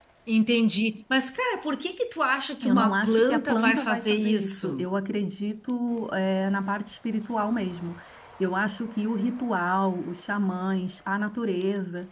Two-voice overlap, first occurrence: 2.6 s

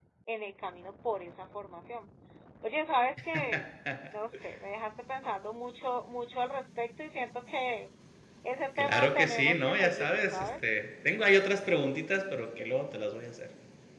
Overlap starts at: 8.8 s

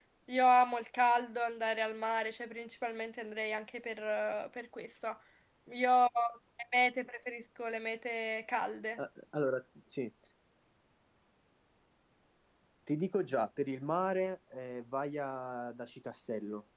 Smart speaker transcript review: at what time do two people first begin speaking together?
none

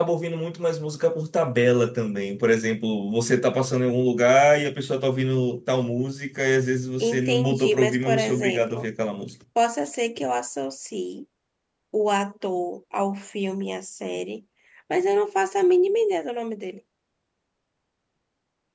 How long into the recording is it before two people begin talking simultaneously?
7.0 s

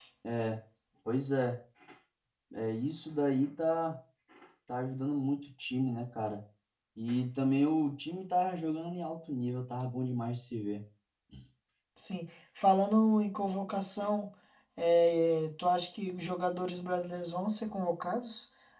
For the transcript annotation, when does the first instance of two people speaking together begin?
none

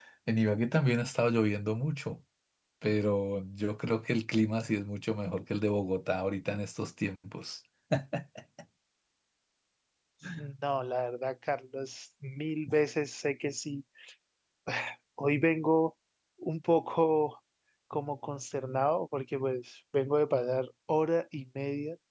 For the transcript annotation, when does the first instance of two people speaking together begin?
none

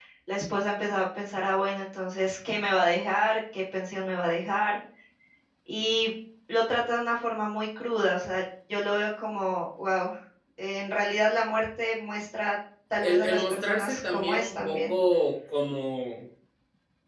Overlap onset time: 13.0 s

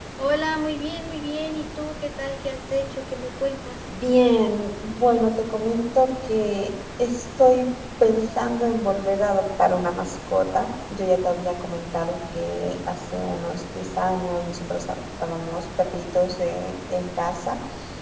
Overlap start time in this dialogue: none

